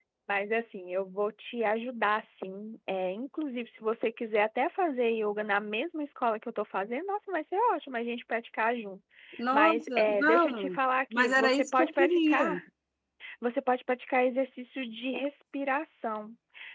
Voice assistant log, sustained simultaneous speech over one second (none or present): present